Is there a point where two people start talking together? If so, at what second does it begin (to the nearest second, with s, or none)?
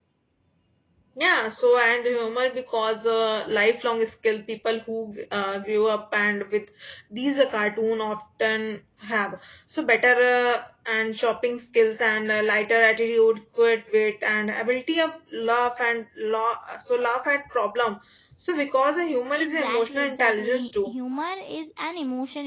19 s